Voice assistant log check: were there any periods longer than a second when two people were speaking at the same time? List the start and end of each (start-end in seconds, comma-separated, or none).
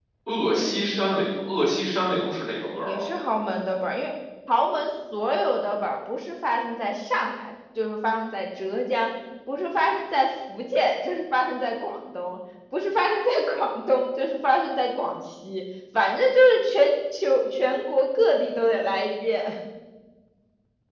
none